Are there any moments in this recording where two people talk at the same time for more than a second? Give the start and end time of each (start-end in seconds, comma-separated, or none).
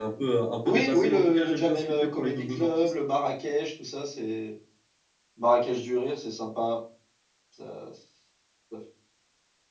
0.7-2.9